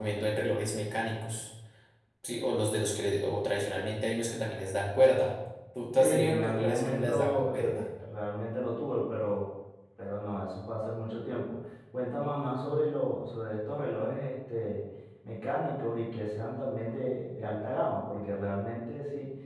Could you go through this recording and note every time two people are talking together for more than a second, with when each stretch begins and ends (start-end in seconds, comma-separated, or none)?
6.0-7.8